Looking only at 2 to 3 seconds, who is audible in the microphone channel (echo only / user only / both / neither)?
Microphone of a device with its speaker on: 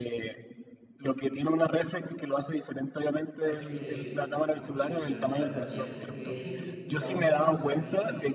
echo only